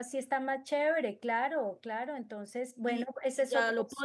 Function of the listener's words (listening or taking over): taking over